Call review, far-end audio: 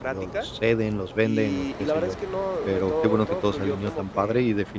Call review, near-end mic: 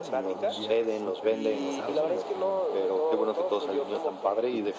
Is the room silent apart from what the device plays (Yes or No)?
No